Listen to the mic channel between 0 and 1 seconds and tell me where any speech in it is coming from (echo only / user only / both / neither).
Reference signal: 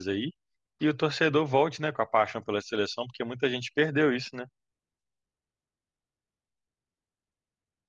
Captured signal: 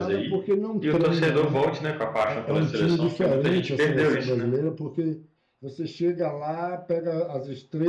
both